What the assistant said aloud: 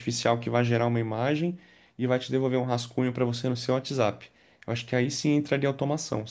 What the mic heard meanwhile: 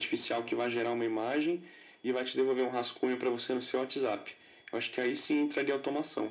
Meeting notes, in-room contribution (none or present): none